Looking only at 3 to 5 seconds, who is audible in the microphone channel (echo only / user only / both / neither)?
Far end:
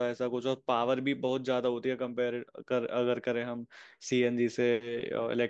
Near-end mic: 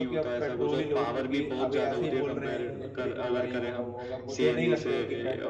both